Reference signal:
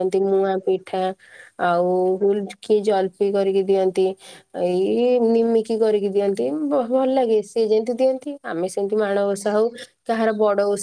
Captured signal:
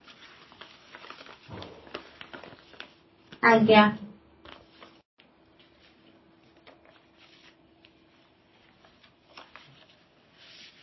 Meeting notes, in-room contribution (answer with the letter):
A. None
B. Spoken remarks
B